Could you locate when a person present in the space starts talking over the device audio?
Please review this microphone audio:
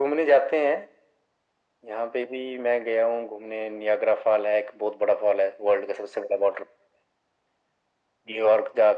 none

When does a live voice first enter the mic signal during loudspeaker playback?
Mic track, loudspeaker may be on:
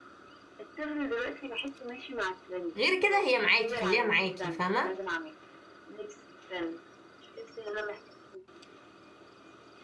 3 s

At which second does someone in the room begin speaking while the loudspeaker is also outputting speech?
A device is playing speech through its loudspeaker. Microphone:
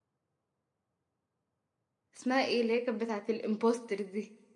2 s

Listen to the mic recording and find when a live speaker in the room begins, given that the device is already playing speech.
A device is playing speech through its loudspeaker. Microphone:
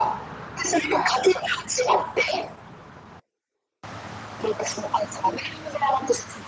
none

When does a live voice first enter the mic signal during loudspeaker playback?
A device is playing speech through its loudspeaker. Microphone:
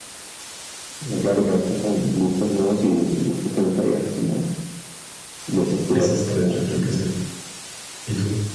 6 s

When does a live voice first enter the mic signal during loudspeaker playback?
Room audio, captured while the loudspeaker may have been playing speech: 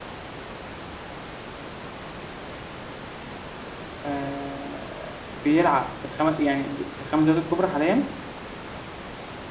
4 s

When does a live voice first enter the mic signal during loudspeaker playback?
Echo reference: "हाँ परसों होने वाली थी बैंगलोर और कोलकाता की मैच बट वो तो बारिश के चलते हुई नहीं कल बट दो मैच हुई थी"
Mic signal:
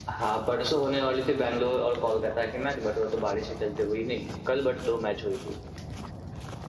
none

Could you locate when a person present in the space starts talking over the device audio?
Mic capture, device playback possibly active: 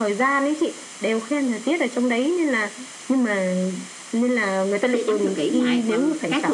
5 s

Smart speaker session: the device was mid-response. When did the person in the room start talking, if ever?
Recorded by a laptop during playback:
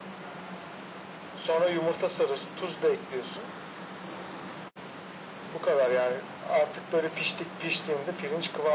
none

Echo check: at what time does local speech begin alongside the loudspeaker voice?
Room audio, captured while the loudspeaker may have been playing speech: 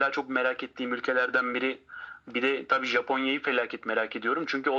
none

